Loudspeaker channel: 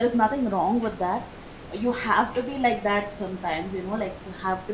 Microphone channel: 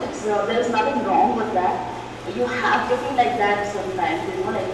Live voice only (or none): none